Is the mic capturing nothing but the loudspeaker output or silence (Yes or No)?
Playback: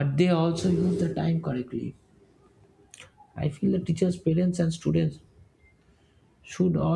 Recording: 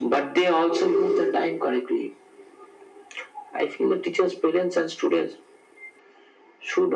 Yes